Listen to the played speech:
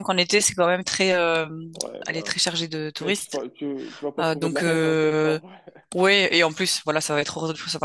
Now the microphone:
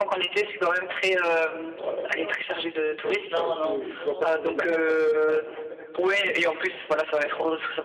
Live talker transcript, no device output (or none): Non, non, non, non.